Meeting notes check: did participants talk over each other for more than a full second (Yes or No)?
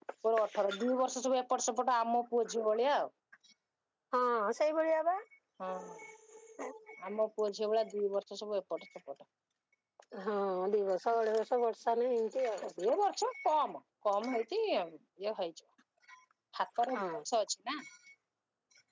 No